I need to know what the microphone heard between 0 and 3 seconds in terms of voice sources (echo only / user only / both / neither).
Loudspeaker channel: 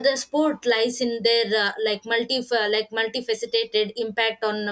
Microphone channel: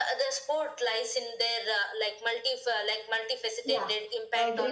echo only